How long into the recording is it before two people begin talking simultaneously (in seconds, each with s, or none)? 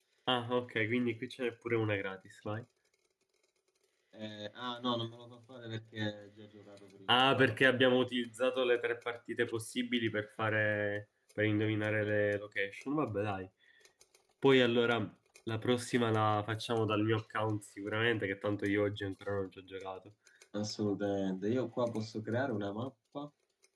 none